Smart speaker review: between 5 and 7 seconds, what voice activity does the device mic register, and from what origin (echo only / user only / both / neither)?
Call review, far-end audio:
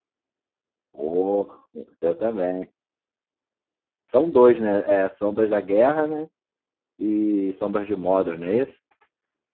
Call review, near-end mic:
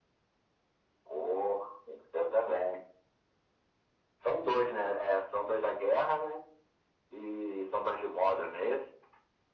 echo only